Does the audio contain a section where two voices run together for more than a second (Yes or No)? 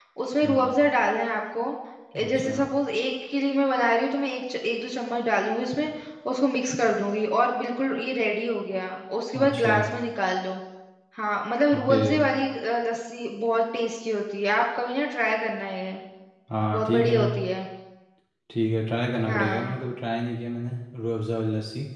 No